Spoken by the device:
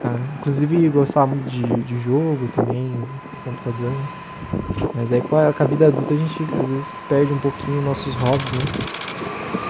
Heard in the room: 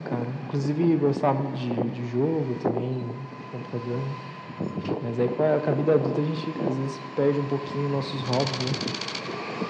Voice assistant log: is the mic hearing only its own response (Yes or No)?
Yes